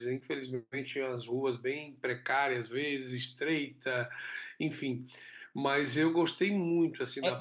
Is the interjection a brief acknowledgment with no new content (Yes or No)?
No